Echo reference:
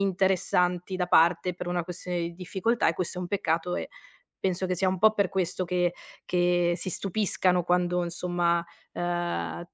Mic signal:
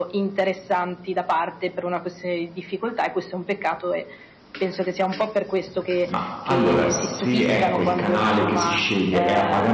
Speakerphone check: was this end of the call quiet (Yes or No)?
No